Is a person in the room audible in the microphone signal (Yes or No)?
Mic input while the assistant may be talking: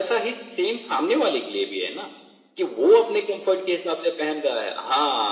No